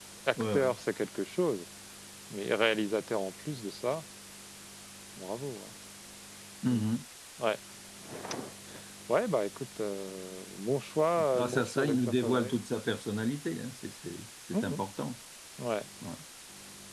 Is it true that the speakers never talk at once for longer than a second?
No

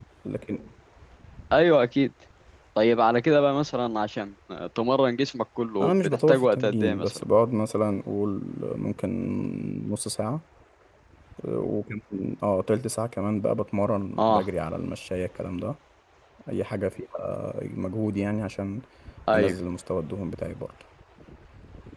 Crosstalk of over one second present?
Yes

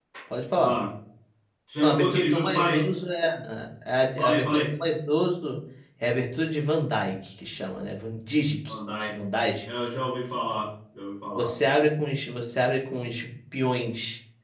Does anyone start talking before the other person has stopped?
Yes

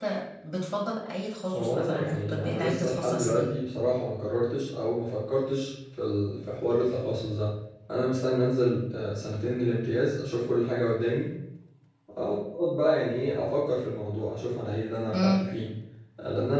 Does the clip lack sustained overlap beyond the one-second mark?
No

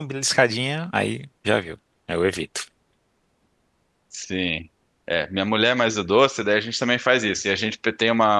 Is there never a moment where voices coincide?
Yes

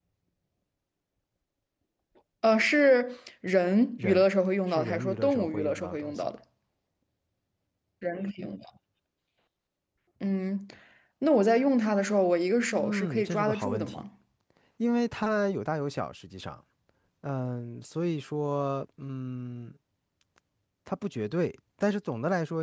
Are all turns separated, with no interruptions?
No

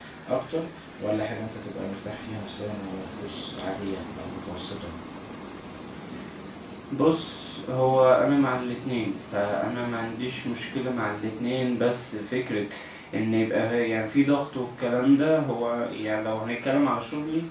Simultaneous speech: No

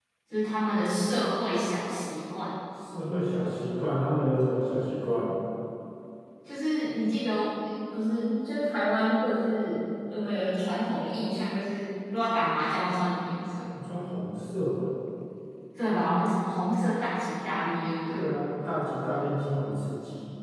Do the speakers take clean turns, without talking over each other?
Yes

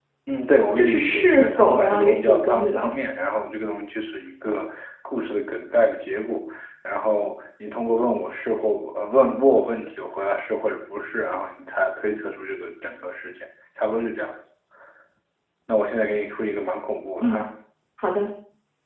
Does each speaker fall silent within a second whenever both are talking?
No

